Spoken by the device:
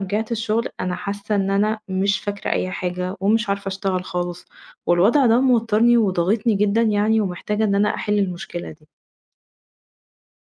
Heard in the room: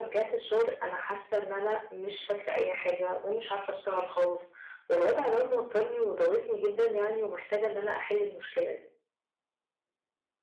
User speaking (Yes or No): No